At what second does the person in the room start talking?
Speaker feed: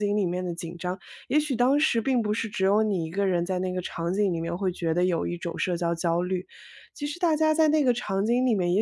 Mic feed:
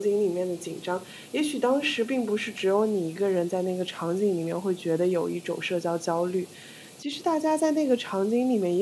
none

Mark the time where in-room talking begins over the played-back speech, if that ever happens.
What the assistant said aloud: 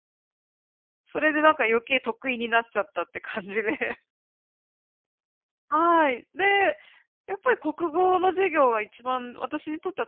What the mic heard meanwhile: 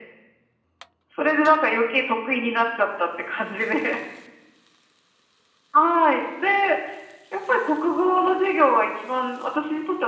none

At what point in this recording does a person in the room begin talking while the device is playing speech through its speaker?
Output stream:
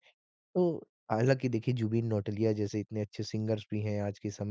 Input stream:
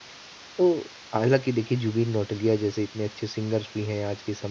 none

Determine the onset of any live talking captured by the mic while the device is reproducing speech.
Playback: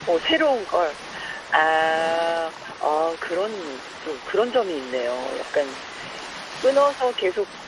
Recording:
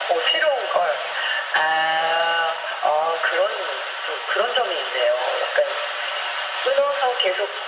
none

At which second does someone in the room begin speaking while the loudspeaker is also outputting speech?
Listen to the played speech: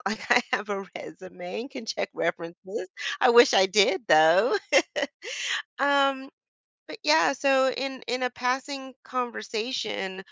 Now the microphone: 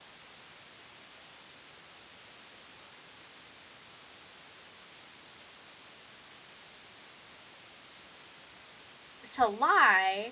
9.3 s

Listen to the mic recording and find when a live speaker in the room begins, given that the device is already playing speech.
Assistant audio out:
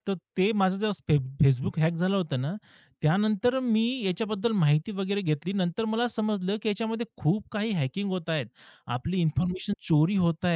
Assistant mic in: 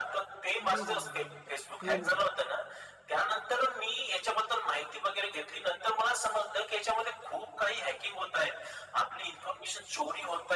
0.6 s

